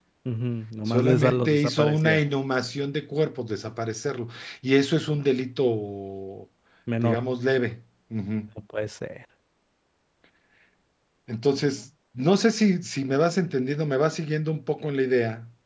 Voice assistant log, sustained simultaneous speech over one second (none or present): present